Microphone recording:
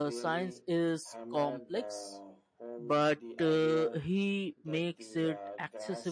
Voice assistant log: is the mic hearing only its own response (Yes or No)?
No